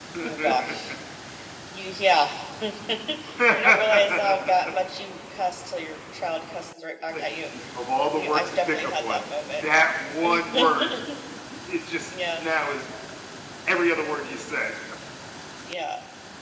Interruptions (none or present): present